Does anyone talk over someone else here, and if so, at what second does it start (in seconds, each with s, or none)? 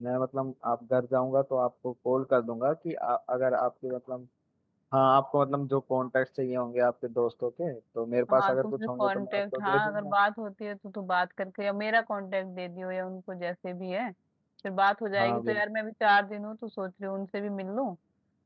8.3 s